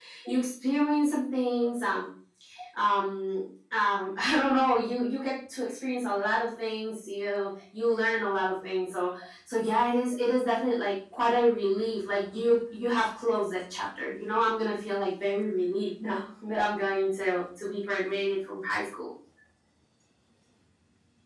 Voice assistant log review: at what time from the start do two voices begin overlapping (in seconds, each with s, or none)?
none